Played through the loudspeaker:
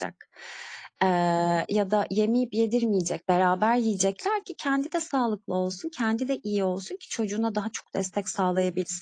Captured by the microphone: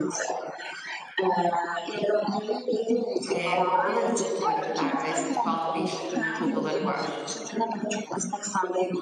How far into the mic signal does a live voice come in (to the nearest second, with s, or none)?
3 s